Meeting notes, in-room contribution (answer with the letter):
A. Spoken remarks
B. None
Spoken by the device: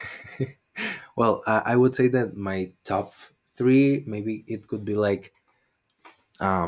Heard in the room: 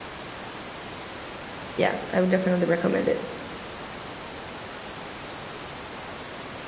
A